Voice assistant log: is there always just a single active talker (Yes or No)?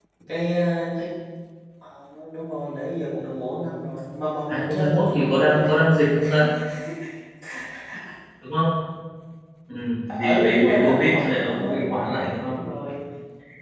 No